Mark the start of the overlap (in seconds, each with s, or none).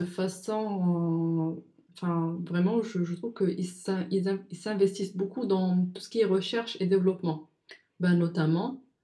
none